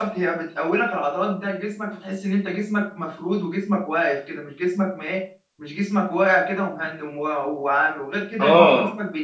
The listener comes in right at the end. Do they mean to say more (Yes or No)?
No